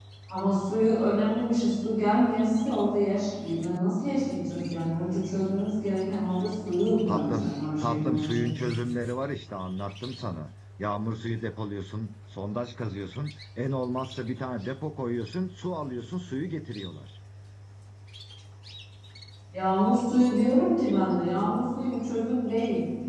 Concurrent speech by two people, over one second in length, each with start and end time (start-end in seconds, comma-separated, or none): 7.1-8.5